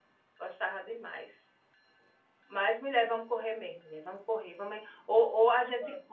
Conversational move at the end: listening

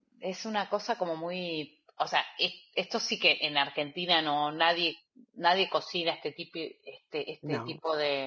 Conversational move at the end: listening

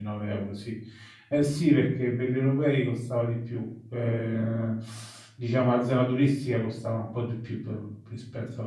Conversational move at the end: listening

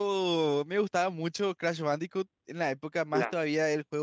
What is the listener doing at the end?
listening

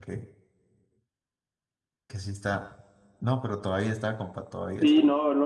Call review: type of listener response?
taking over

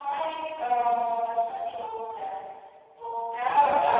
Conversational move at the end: listening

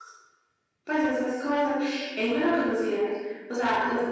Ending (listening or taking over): listening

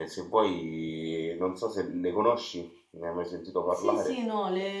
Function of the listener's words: taking over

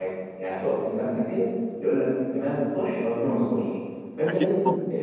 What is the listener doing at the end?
listening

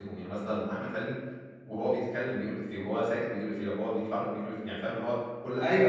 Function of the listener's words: taking over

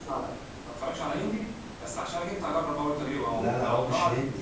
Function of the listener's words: taking over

